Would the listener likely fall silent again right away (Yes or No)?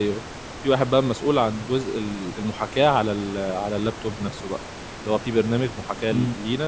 Yes